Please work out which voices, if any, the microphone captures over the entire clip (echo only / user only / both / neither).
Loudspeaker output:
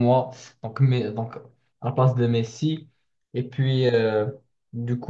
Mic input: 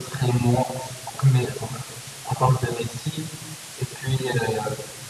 echo only